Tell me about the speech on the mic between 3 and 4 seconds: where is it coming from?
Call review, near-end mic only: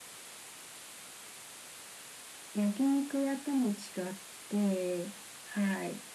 echo only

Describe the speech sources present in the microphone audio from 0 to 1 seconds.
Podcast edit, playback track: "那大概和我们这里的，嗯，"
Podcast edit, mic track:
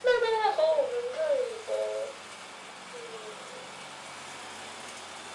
echo only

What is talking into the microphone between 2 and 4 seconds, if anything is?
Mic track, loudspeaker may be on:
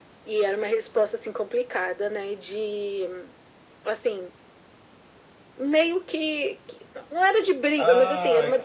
echo only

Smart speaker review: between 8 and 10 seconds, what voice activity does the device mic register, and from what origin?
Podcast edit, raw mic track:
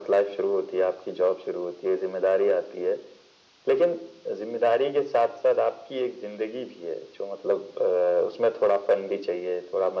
echo only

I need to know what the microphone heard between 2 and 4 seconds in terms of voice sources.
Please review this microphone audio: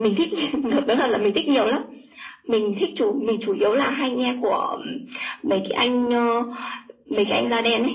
echo only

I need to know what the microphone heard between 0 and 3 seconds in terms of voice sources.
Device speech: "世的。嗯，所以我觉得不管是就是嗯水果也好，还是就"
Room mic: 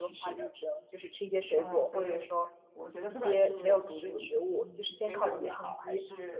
both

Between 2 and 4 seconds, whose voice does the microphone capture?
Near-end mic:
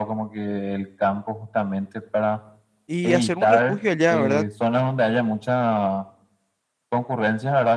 both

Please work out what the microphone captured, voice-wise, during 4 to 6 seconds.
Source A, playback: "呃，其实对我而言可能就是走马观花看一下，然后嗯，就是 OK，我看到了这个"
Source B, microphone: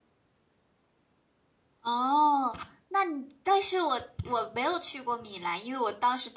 user only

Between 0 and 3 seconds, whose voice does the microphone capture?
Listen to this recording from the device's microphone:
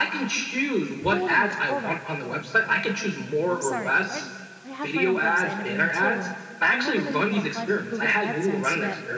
both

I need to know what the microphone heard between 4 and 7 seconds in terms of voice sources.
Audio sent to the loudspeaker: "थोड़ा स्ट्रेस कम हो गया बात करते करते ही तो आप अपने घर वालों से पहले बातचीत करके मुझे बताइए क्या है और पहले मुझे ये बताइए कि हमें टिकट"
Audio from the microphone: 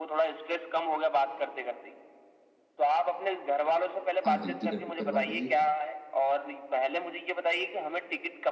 both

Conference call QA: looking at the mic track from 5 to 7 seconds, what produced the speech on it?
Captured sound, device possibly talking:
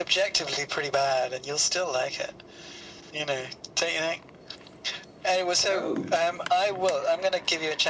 both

